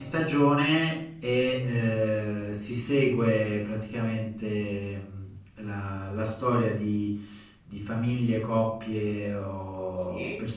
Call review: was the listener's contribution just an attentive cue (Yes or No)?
Yes